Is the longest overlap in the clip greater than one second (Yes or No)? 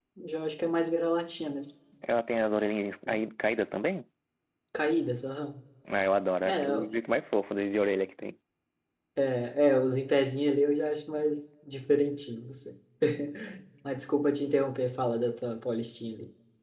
No